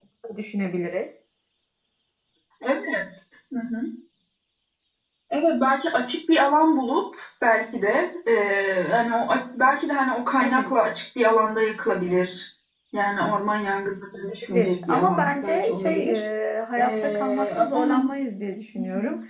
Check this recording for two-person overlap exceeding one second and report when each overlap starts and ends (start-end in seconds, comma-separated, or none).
14.4-16.1, 16.8-18.2